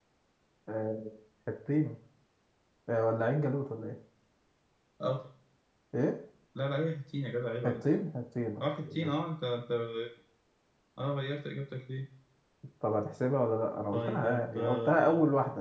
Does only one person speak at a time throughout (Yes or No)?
No